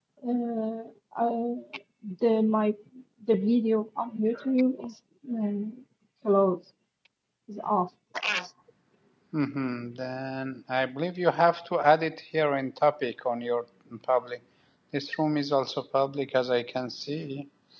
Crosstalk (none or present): none